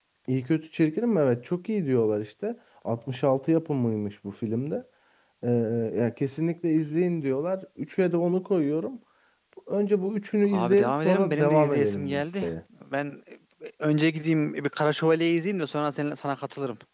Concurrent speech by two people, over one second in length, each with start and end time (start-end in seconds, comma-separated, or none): 10.5-12.5